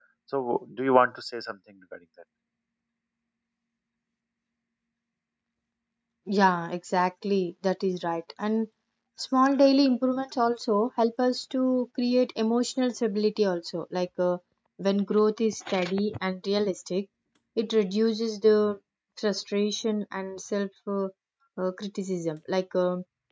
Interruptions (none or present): none